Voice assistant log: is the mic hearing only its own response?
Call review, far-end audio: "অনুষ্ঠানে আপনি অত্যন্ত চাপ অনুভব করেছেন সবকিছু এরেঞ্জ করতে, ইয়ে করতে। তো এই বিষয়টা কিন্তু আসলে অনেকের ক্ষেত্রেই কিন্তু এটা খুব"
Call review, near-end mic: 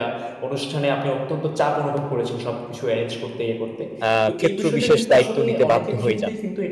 No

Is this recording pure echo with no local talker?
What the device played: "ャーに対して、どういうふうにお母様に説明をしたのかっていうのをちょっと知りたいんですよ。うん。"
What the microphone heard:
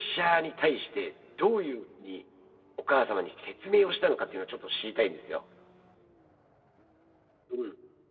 Yes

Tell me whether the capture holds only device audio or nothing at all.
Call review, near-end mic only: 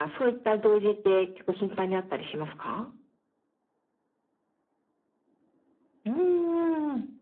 Yes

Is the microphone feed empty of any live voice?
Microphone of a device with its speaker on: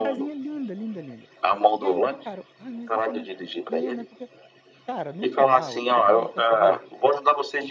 No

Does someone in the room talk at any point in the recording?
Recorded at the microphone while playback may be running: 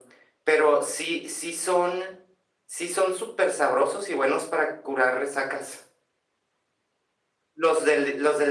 No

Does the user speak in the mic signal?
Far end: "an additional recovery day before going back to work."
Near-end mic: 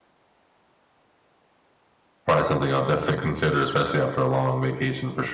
Yes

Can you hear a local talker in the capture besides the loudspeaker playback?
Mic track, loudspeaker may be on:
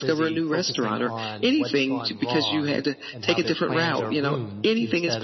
Yes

